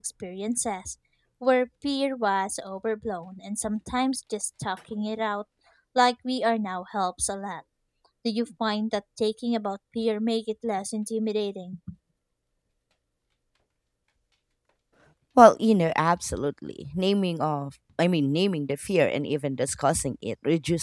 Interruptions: none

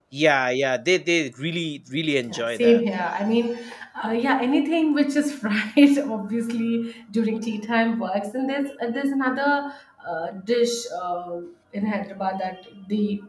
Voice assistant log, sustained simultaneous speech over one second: none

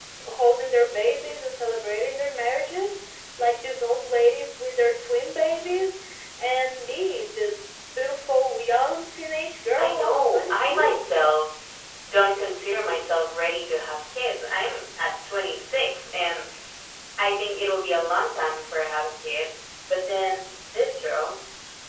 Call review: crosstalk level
present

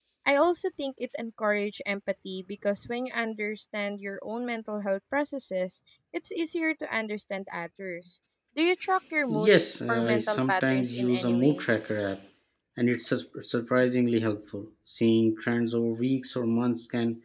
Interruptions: present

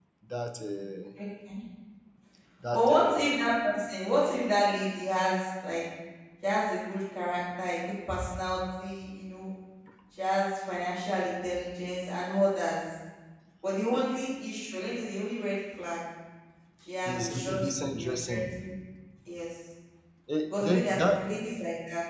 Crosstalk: present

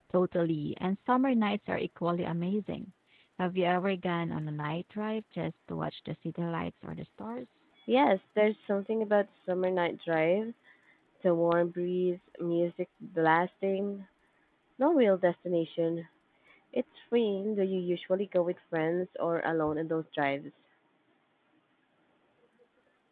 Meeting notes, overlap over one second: none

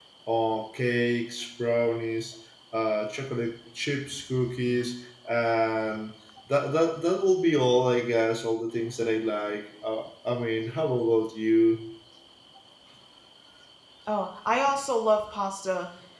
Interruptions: none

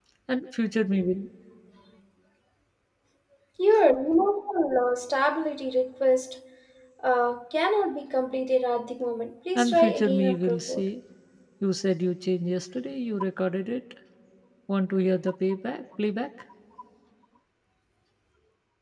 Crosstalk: present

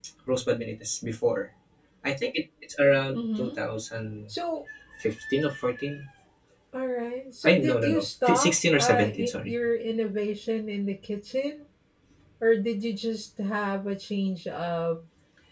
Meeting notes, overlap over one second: present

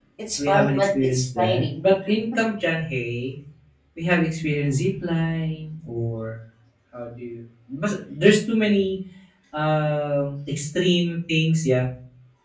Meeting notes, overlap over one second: present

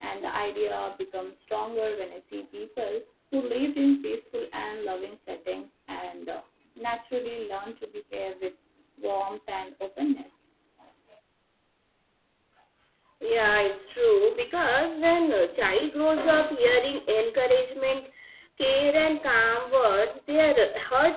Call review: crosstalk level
none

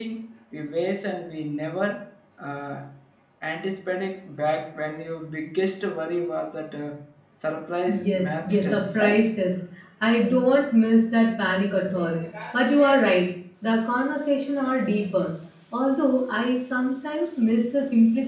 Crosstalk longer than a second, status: present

